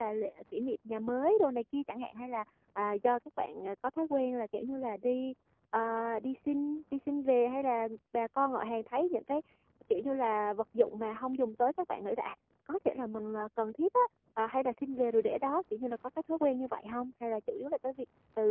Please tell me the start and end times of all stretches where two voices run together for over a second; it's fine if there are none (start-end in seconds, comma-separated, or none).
none